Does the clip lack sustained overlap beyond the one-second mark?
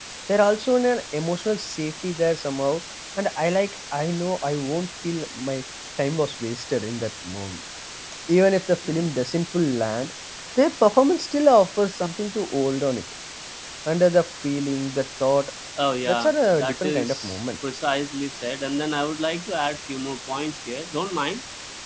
No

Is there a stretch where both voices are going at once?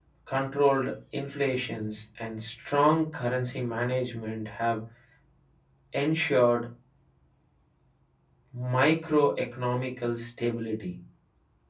No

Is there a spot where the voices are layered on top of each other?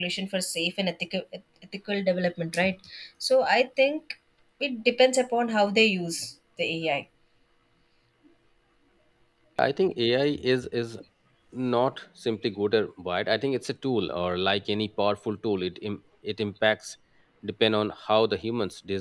No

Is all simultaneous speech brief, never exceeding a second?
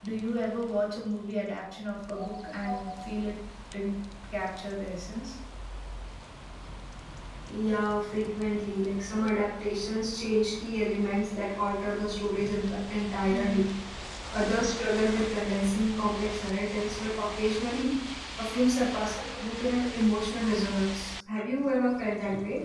Yes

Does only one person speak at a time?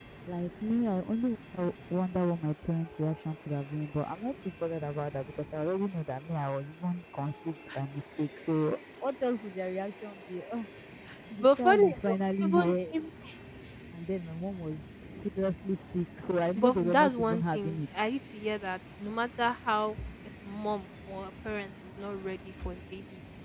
No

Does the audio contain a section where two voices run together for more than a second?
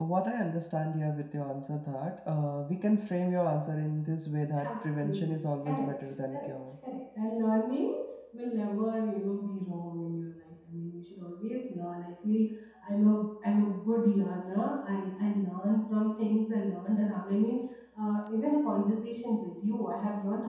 Yes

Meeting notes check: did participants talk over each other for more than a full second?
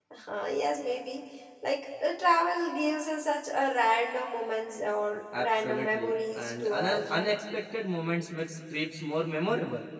Yes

